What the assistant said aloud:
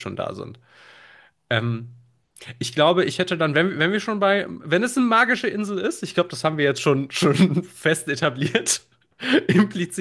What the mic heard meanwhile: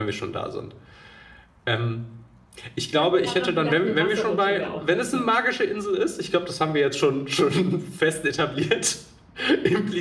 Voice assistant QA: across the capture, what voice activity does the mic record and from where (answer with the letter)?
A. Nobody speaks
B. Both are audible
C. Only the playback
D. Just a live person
B